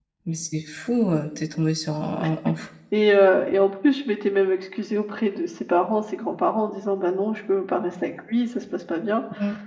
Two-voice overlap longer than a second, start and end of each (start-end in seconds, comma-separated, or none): none